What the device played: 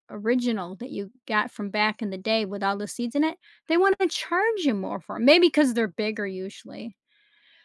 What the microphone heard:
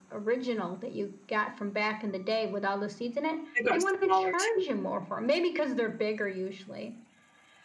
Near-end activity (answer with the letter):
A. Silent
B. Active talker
B